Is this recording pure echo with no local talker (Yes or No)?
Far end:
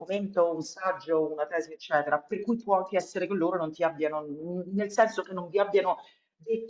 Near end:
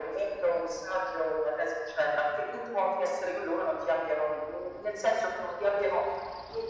Yes